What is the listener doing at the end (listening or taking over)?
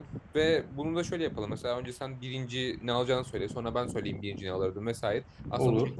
listening